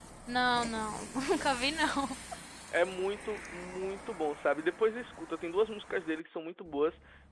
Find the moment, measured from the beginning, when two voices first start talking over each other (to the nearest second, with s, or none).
none